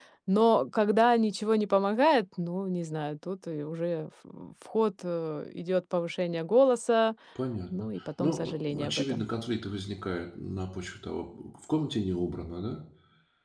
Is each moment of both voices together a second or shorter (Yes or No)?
No